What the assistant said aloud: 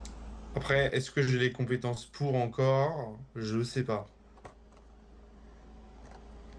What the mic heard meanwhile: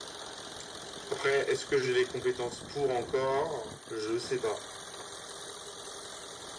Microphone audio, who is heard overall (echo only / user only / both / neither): echo only